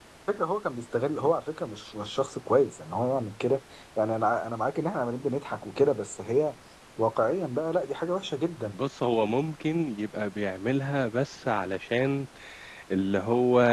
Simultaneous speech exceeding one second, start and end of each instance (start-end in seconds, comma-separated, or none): none